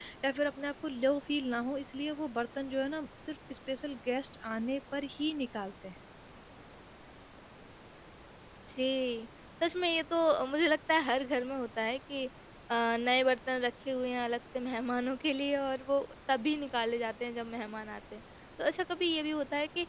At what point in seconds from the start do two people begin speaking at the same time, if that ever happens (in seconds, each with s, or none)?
none